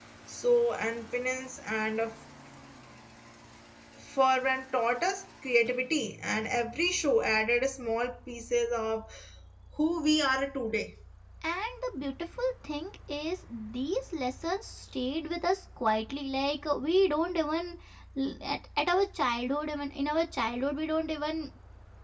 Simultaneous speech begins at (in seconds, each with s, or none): none